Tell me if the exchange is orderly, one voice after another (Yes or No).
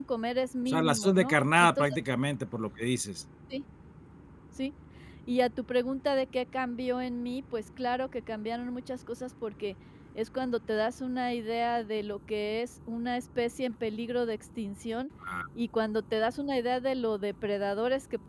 No